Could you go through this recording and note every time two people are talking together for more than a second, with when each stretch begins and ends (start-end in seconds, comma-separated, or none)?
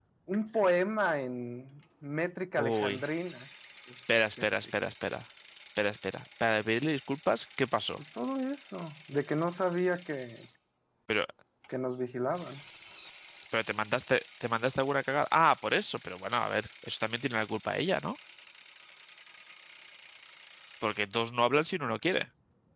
none